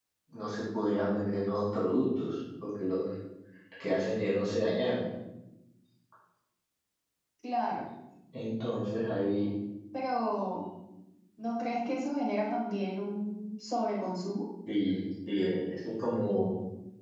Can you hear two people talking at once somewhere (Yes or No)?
No